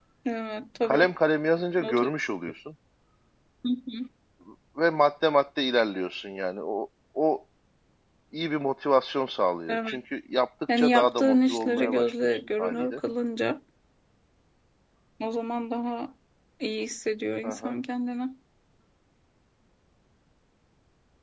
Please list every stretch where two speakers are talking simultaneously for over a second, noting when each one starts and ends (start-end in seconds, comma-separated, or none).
10.8-13.0